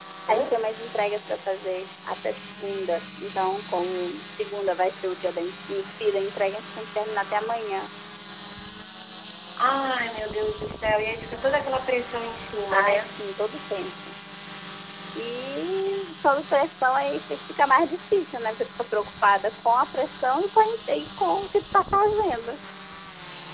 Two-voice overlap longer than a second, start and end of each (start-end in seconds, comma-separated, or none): none